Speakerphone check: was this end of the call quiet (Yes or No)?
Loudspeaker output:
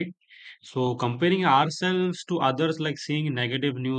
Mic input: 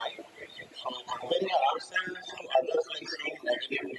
Yes